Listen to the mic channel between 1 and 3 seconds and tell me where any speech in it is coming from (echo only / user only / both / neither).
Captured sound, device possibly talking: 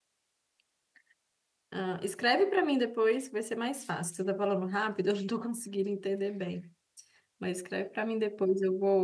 user only